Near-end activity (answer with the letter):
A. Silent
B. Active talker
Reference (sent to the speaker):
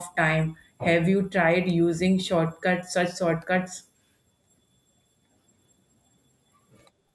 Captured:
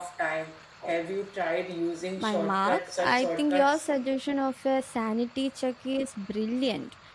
B